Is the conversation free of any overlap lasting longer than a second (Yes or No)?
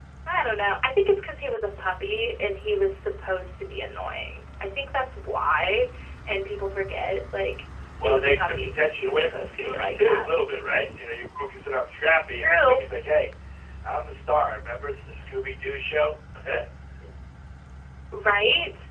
No